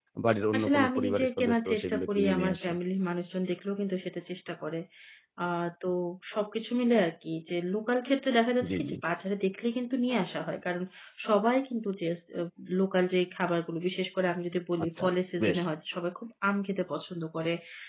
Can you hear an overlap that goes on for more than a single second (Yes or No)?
Yes